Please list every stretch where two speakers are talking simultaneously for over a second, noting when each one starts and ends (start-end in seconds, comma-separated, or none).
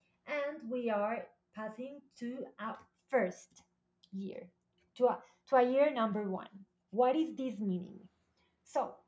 none